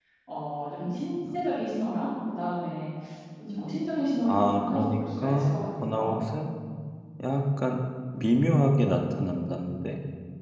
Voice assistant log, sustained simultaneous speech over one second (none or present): present